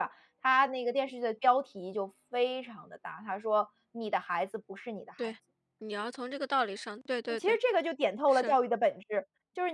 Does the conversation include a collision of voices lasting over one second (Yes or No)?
No